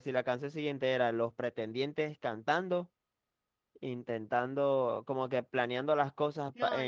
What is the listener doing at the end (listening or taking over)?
taking over